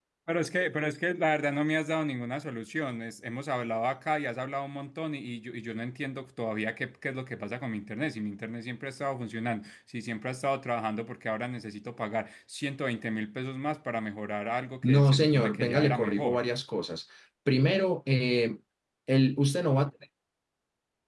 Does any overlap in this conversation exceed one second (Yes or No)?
Yes